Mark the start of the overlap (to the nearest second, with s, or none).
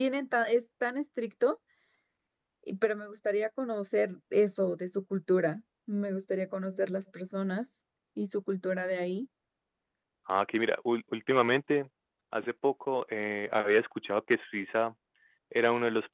none